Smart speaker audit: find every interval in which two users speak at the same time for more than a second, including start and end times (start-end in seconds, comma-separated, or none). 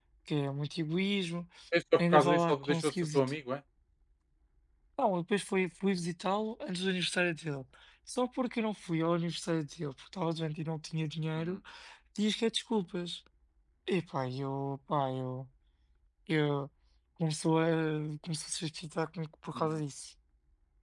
2.0-3.4